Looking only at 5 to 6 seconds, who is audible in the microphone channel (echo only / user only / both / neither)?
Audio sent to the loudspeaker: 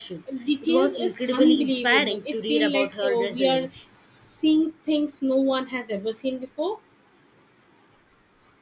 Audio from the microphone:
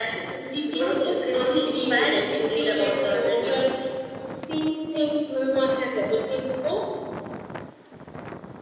echo only